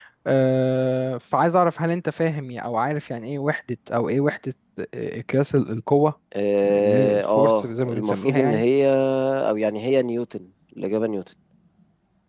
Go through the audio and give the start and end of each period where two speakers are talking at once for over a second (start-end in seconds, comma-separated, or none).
6.6-8.6